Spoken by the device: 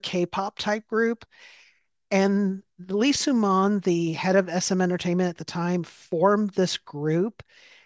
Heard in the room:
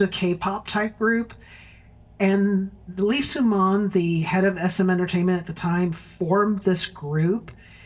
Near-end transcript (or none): none